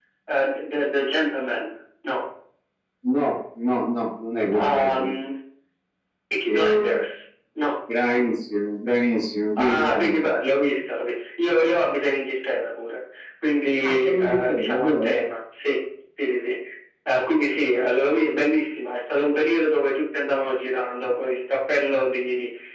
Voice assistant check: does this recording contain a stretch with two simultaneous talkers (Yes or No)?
Yes